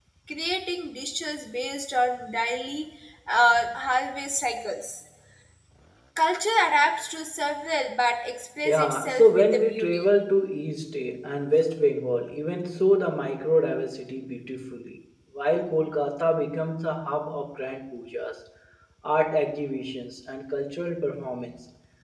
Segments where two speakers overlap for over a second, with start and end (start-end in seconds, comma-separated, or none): 8.6-10.1